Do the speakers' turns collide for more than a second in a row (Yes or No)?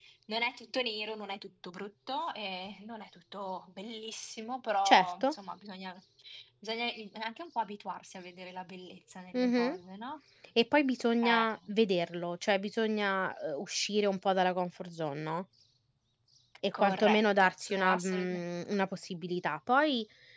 Yes